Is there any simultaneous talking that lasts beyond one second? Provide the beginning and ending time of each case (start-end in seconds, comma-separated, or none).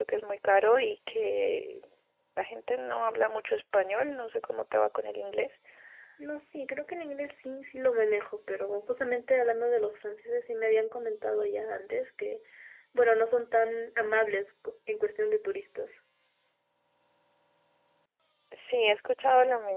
none